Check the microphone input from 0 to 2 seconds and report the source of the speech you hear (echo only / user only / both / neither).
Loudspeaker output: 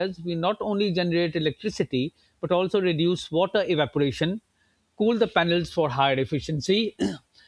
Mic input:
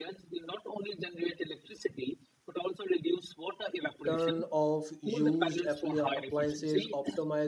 echo only